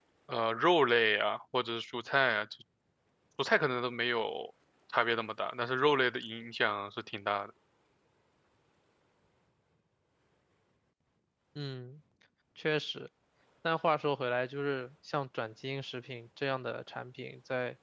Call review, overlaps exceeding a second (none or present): none